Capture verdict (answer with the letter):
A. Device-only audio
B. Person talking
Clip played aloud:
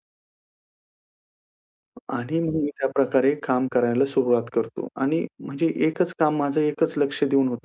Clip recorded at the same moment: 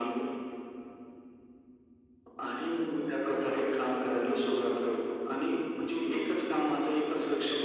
A